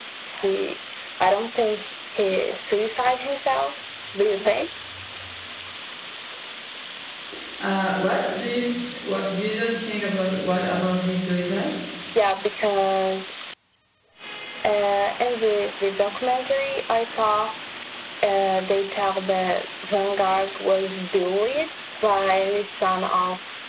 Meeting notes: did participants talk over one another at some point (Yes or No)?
No